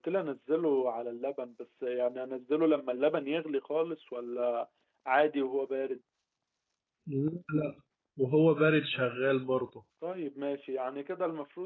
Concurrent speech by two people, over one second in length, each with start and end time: none

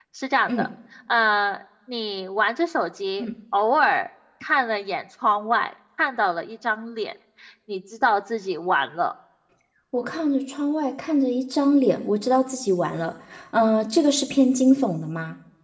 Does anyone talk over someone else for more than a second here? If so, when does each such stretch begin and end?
none

